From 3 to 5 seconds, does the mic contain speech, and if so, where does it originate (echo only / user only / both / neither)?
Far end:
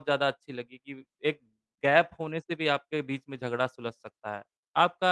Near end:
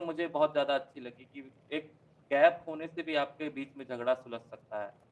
echo only